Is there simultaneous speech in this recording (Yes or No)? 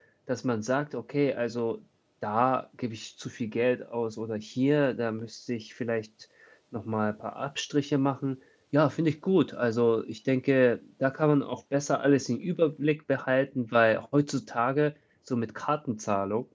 No